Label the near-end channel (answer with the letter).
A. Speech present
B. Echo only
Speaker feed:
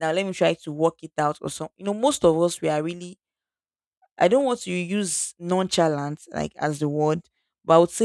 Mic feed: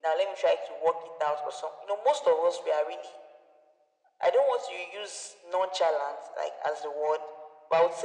B